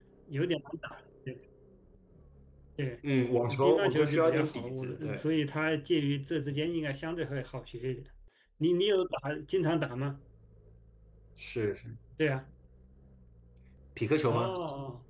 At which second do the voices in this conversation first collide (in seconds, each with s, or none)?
3.5 s